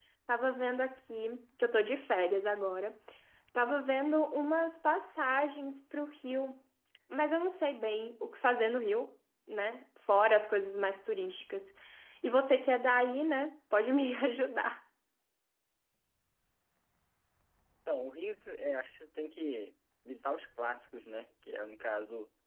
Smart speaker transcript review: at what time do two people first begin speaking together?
none

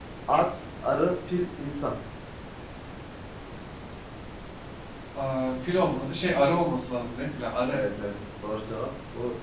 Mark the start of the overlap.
none

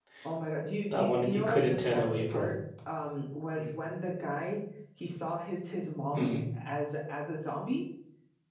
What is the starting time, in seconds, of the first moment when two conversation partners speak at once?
1 s

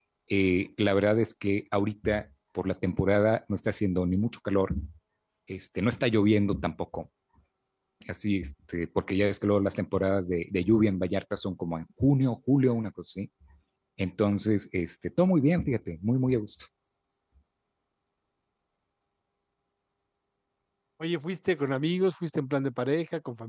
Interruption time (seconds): none

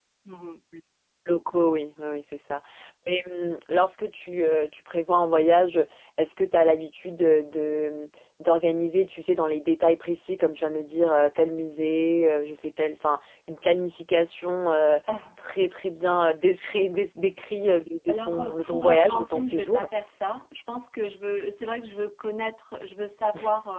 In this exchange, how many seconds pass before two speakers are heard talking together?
18 s

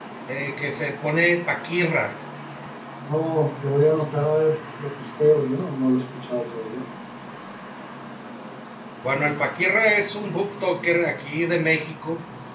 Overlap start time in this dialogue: none

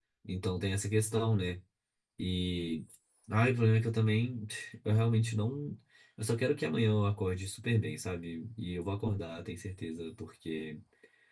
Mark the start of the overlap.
none

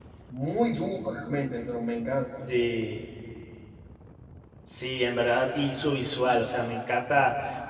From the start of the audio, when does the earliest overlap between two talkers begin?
none

